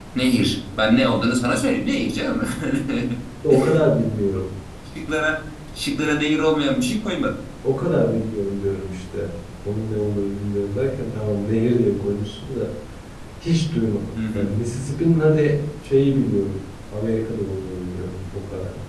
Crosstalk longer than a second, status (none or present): none